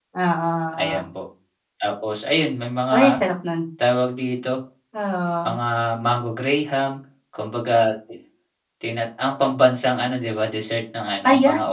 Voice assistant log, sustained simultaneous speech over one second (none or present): none